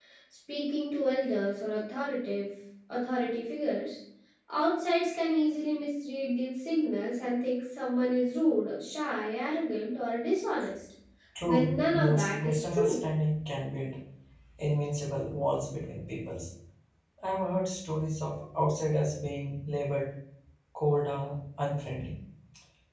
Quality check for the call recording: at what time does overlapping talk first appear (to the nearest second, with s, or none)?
11 s